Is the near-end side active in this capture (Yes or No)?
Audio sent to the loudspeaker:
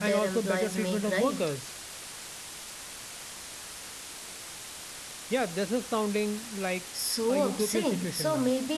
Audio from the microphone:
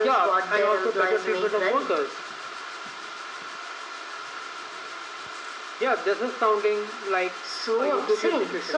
No